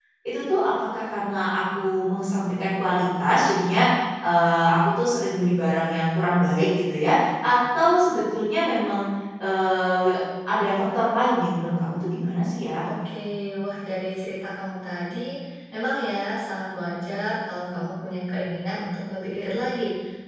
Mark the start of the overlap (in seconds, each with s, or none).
none